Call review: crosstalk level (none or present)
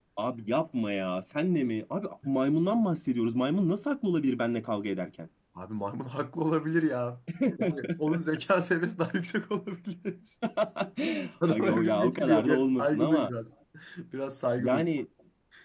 present